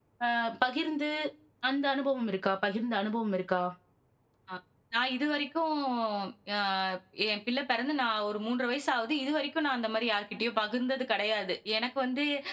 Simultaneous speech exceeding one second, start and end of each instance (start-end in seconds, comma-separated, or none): none